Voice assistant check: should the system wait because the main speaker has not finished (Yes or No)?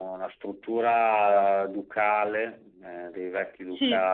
No